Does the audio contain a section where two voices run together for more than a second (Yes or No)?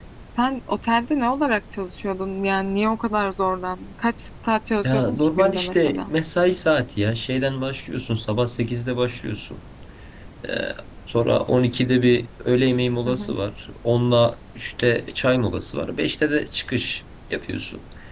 Yes